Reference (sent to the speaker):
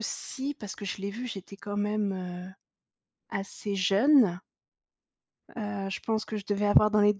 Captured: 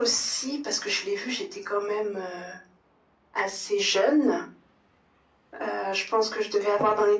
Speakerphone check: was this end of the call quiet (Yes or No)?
Yes